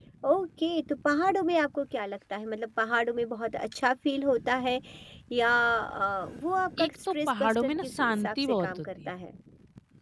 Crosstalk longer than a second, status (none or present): present